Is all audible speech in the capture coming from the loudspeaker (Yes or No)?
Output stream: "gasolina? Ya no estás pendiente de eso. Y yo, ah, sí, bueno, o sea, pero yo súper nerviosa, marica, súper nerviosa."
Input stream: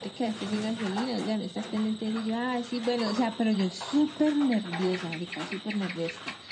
Yes